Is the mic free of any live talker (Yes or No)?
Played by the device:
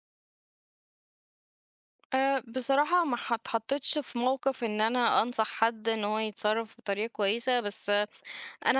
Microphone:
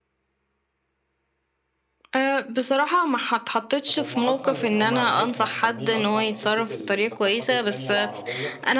No